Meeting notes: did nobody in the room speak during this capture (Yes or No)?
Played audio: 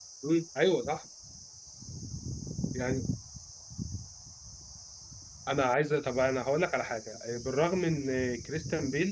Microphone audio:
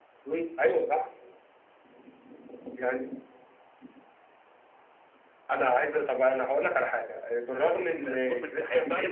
No